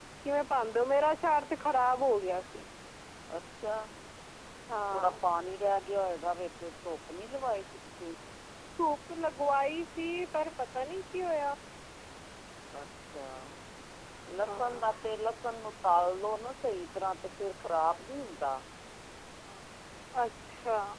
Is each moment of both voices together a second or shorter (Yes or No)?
Yes